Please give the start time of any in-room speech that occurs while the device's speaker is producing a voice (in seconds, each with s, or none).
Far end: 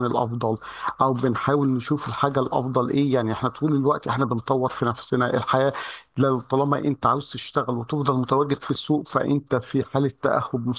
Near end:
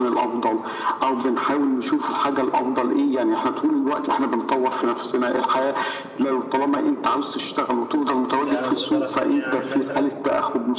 8.4 s